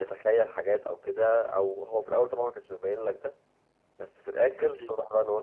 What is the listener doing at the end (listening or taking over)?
listening